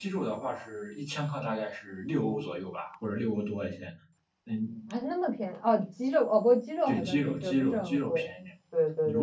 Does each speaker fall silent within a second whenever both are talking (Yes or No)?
No